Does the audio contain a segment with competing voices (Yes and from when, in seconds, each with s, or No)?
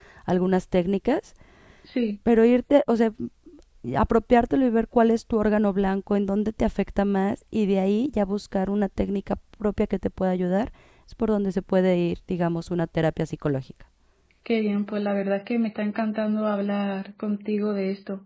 No